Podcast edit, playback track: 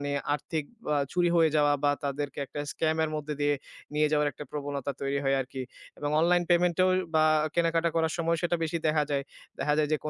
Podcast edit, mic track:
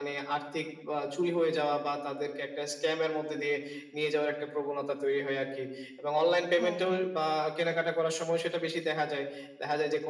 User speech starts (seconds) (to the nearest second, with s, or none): 7 s